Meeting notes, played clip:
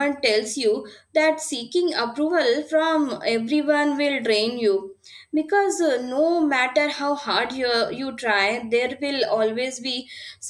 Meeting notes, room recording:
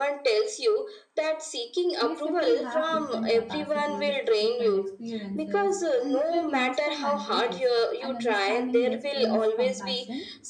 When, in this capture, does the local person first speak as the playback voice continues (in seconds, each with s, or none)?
2.0 s